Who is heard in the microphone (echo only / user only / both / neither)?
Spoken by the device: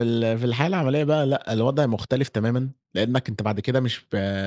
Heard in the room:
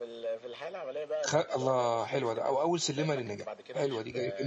both